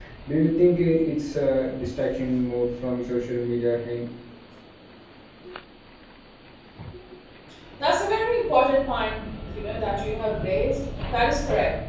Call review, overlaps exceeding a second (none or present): none